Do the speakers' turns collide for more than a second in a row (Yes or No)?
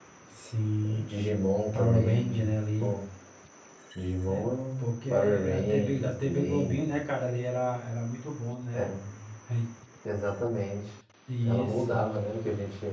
Yes